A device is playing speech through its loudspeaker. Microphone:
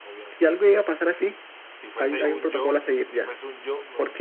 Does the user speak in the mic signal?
Yes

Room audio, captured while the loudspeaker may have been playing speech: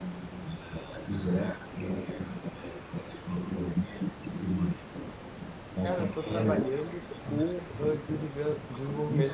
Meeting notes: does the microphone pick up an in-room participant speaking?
Yes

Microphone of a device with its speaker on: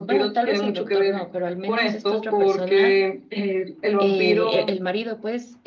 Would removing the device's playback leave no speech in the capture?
Yes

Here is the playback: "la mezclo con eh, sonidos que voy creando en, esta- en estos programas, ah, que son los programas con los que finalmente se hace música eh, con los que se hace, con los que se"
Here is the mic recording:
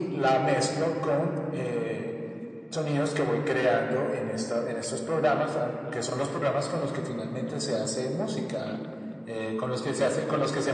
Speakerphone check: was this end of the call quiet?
Yes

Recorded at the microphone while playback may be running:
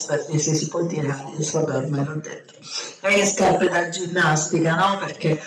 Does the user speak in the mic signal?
No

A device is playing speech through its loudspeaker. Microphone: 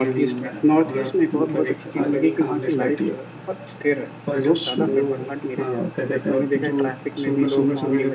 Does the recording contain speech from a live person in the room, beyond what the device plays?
Yes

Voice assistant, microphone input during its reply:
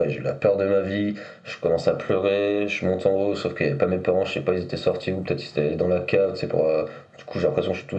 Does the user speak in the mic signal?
No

